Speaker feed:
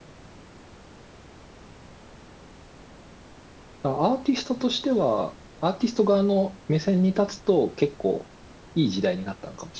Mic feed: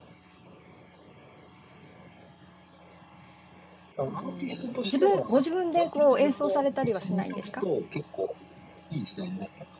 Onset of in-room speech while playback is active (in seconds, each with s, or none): 4.1 s